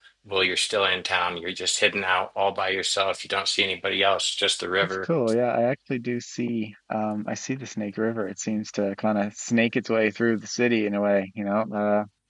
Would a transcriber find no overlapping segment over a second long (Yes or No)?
Yes